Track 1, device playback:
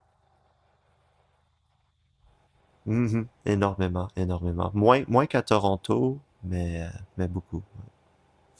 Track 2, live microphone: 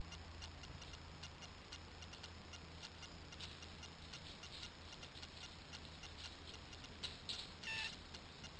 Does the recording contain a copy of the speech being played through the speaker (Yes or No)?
No